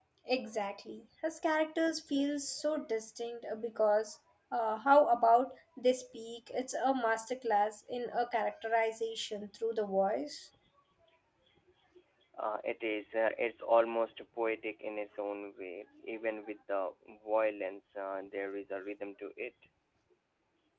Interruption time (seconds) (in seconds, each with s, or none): none